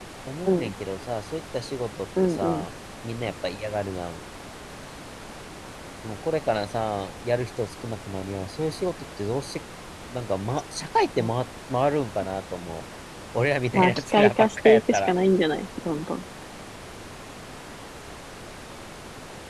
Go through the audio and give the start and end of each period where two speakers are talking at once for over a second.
13.8-15.1

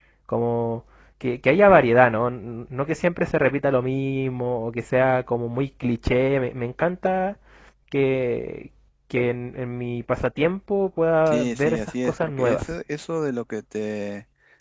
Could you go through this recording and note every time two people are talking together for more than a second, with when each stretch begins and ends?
11.3-12.8

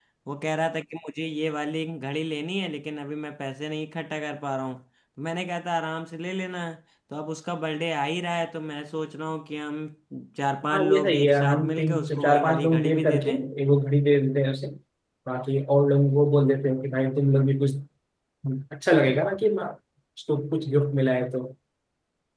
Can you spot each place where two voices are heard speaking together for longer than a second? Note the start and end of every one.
10.7-13.4

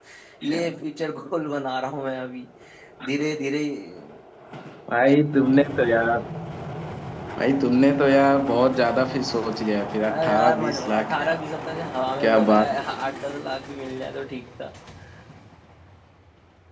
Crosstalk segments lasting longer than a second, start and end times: 10.1-11.4

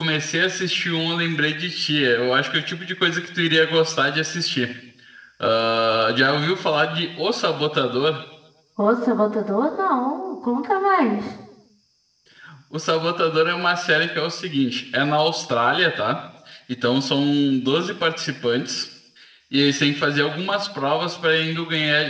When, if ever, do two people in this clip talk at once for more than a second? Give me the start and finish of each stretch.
none

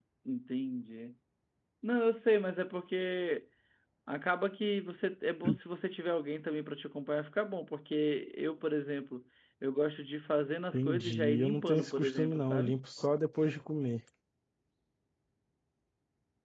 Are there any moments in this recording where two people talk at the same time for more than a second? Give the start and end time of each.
10.7-12.8

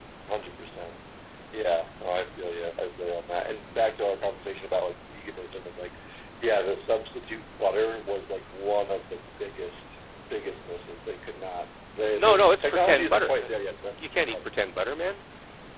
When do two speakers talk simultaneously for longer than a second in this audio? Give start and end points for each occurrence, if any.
12.1-13.5

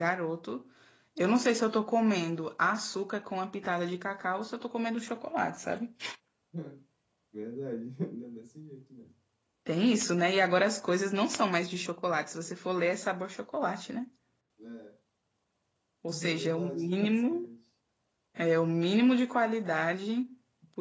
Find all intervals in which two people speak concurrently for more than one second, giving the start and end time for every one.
16.1-17.5

